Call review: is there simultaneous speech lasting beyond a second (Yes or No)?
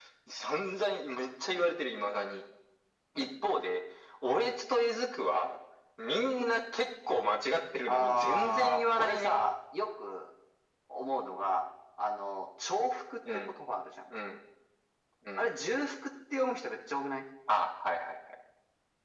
Yes